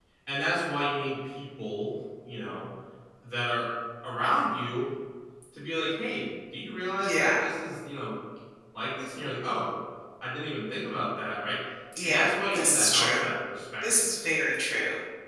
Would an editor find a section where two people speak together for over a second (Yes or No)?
Yes